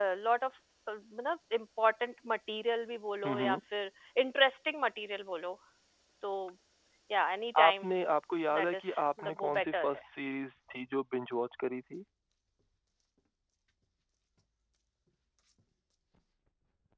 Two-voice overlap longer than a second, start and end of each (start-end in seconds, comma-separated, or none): 8.6-9.9